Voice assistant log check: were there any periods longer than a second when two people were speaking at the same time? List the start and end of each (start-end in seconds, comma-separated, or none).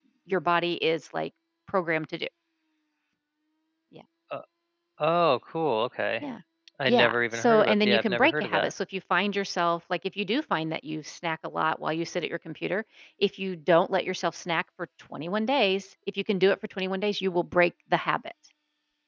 6.9-8.7